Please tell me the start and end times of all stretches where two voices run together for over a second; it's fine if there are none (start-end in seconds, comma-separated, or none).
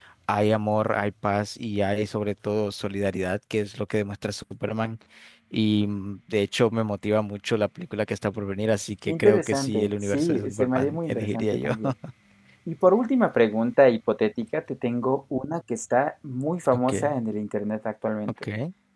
9.1-11.7